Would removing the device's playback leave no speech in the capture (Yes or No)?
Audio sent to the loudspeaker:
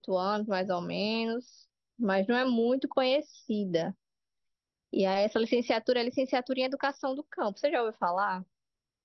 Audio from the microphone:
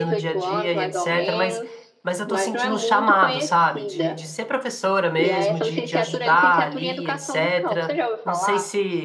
No